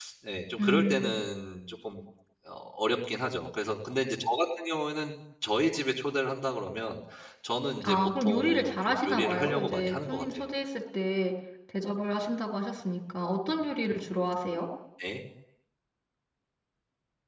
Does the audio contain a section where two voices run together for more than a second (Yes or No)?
Yes